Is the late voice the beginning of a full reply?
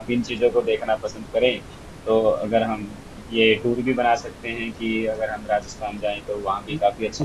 Yes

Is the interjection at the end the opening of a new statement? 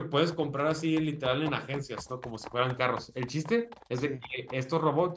No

